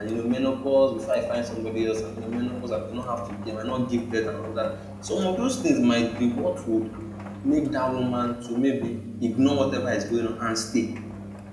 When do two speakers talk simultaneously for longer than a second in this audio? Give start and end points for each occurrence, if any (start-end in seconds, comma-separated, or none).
none